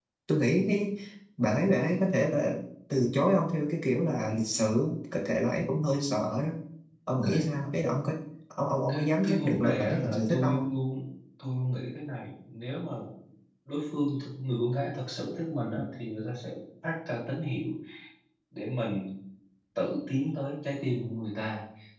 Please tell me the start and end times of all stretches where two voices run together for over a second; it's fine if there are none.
8.9-10.7

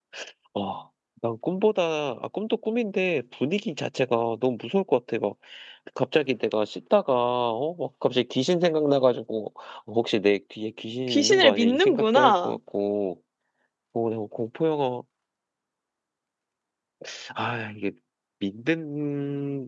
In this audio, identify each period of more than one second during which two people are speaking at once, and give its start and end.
11.1-12.6

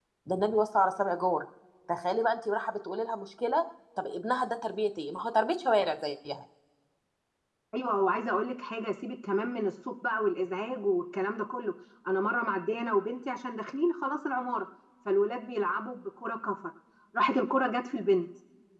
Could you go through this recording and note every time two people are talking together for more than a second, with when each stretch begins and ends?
none

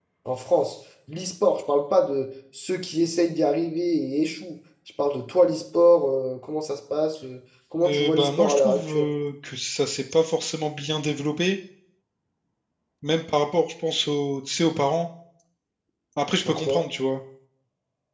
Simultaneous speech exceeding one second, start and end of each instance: 7.8-9.1

